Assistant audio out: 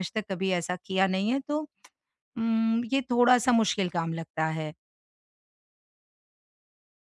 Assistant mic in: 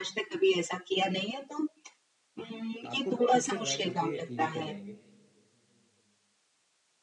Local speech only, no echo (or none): आपको खुद से ड्राइव करके लेकर जाएँगे।